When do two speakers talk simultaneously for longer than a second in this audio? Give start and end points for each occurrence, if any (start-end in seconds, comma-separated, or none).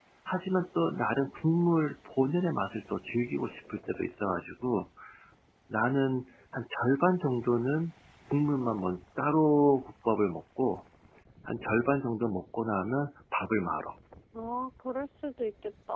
none